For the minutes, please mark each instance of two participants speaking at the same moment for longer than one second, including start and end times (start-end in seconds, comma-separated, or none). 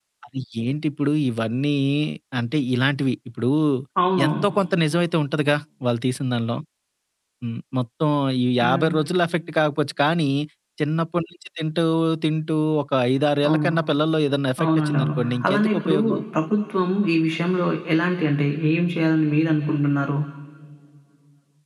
14.6-16.0